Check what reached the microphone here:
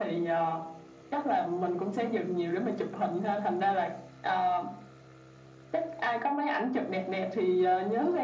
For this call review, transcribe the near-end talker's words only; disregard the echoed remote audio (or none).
none